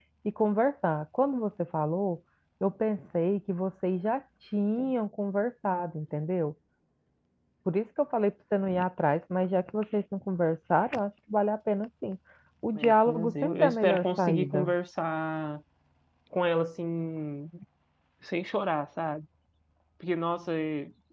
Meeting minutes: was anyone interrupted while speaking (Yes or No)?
Yes